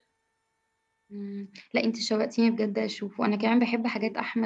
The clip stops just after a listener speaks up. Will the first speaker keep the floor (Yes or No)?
Yes